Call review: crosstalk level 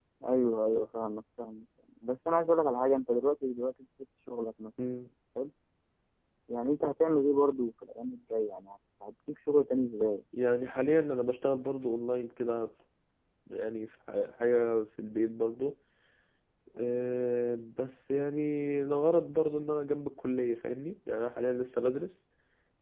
none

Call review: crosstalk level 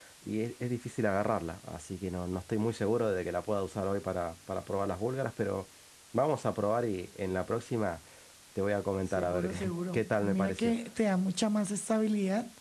present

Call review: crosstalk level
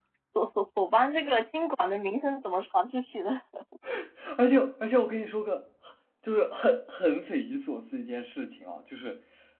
none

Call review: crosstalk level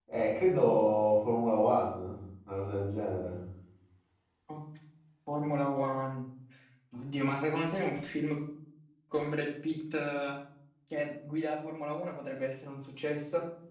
none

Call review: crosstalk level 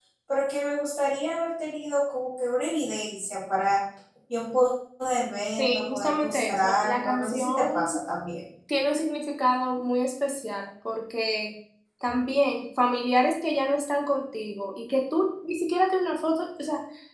present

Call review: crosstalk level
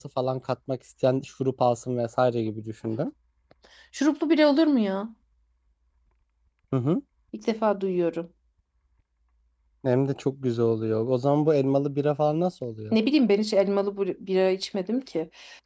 none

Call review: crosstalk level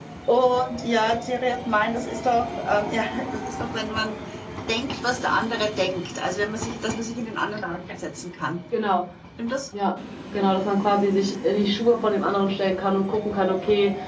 none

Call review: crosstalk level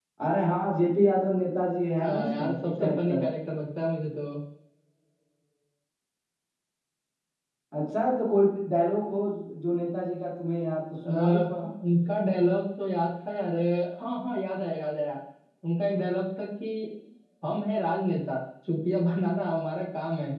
present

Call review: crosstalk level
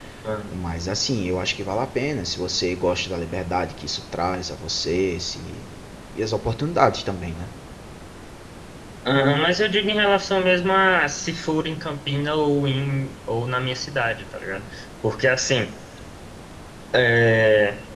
none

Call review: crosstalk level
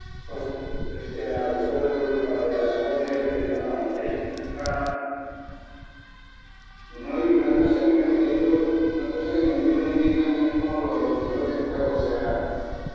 none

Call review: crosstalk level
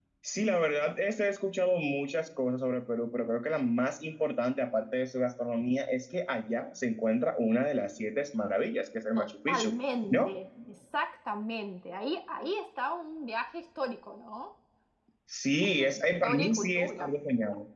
present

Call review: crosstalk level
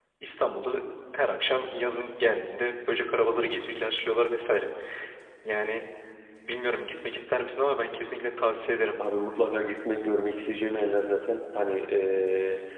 none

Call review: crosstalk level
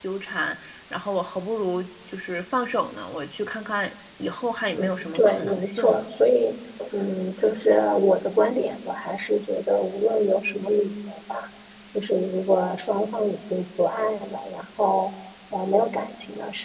present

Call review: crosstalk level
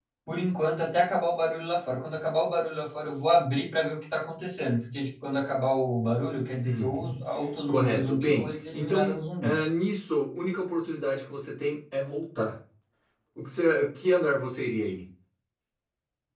present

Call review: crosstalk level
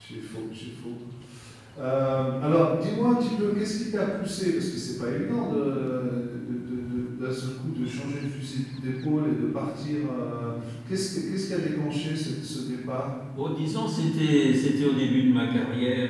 none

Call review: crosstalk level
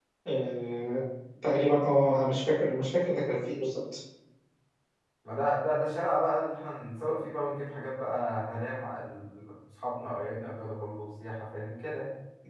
none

